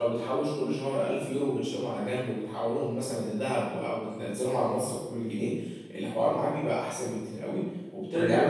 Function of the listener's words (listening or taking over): listening